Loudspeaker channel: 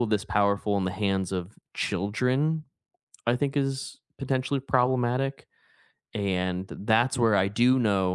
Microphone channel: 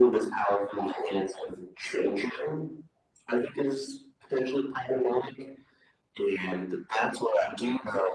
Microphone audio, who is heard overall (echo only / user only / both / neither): echo only